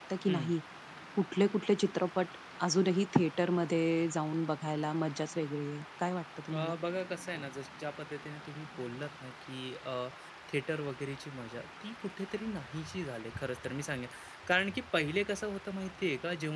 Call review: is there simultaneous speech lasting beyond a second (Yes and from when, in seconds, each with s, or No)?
No